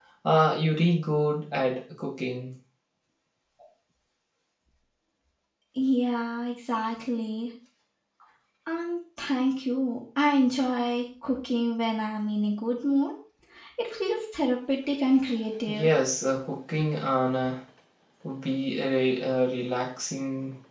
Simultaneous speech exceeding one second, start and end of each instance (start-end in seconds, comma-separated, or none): none